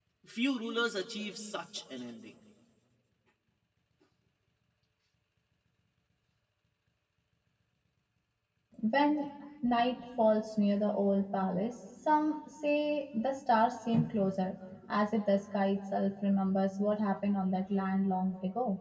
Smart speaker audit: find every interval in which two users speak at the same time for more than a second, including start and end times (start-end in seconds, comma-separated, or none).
none